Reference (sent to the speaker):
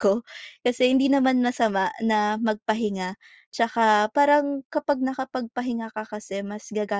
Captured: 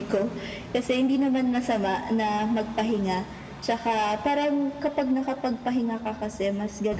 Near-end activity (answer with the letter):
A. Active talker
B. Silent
B